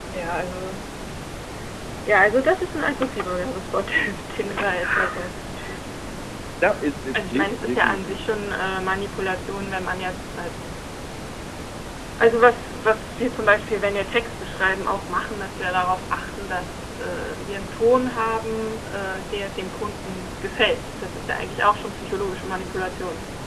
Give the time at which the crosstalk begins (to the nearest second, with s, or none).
7 s